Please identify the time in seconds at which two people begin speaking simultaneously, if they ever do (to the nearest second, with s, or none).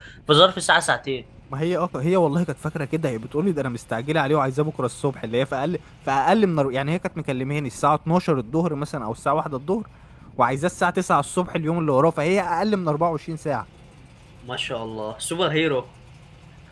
none